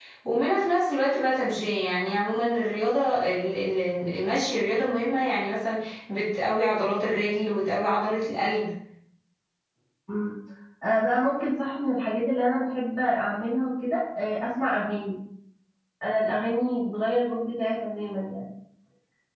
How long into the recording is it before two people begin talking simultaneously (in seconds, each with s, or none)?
none